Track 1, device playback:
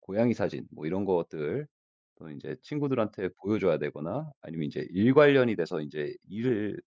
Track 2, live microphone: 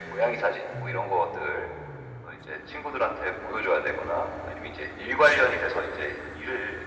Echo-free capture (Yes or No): No